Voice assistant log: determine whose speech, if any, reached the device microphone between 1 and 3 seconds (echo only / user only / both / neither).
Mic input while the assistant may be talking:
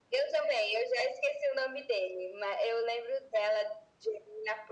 echo only